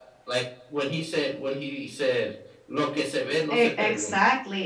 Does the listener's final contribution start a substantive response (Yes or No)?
Yes